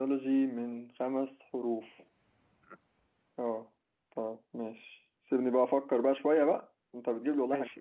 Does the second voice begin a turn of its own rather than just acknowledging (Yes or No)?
Yes